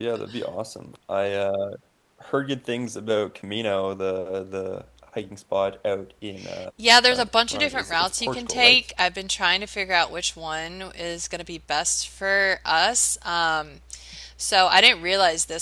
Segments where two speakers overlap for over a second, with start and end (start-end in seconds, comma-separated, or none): 7.1-8.8